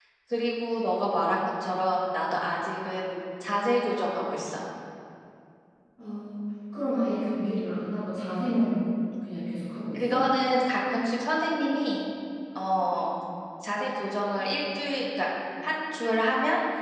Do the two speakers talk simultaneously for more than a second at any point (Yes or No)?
No